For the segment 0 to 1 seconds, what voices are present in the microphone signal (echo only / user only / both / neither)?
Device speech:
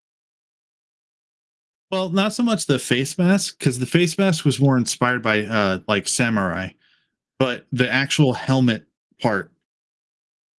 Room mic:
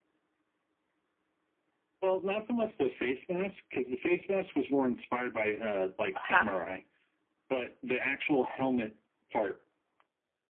neither